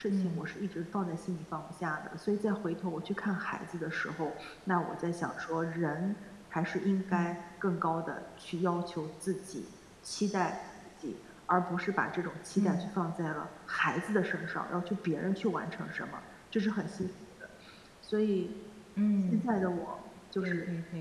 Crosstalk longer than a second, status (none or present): none